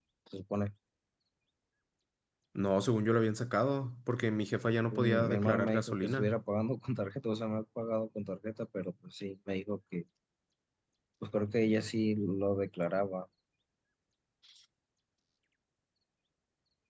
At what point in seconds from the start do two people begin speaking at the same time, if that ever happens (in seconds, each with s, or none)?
4.9 s